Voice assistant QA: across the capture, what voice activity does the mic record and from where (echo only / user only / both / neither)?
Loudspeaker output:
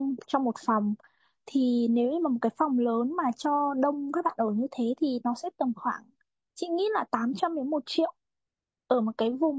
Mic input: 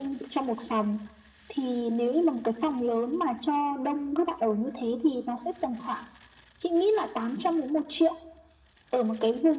echo only